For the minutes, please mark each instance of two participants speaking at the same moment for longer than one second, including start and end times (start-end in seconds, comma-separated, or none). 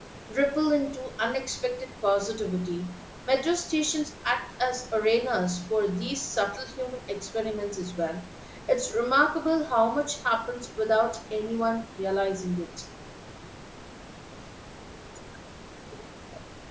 none